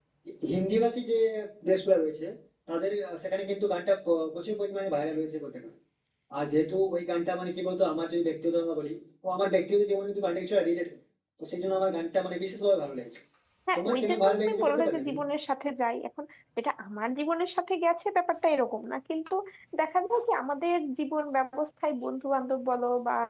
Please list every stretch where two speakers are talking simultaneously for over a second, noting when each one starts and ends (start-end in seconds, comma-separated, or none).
13.8-15.2